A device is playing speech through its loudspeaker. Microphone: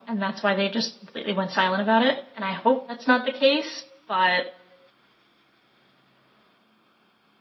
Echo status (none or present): present